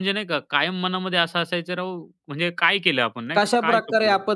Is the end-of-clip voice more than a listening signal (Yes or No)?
Yes